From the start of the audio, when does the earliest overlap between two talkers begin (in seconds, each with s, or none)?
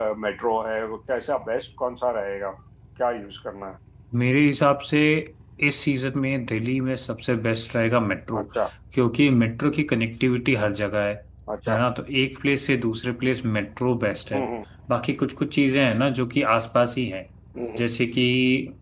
none